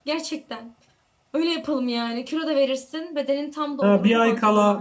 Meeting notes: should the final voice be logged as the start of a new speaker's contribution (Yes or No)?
Yes